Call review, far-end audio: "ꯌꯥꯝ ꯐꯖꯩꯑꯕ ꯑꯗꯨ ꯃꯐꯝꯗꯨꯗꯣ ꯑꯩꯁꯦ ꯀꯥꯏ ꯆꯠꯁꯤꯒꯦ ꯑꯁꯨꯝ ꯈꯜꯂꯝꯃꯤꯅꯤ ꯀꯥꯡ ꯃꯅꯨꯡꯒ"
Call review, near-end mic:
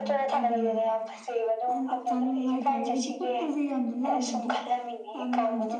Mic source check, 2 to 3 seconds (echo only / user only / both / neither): both